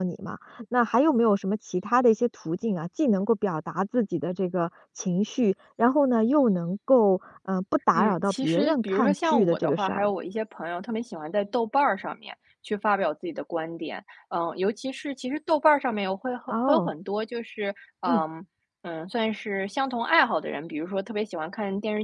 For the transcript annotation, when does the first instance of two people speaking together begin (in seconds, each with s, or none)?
7.9 s